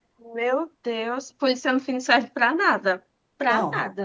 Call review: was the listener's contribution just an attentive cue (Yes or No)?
No